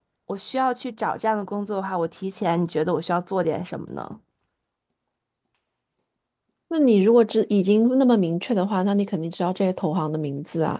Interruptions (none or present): none